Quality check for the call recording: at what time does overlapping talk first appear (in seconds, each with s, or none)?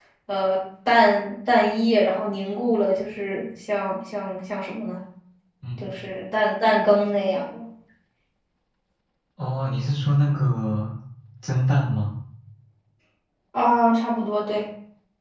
none